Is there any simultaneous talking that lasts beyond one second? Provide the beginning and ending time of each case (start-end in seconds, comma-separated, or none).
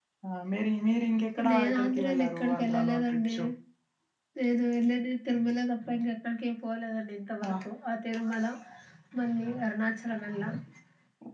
1.5-3.4